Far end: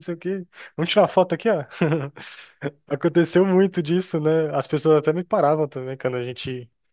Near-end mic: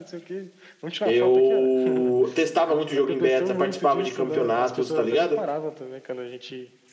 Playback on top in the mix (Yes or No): No